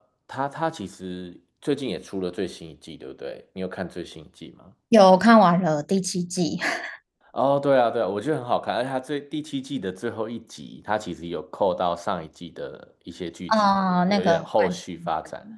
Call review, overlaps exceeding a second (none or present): present